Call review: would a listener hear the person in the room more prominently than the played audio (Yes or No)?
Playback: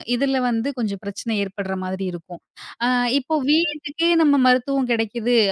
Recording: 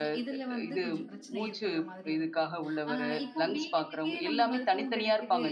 Yes